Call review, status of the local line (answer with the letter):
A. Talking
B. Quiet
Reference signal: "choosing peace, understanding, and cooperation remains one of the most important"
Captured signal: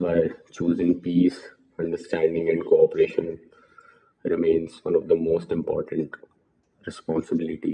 B